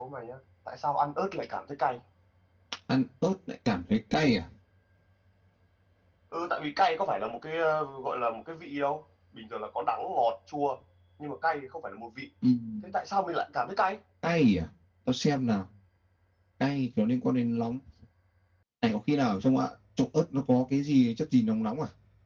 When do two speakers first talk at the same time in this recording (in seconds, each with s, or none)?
none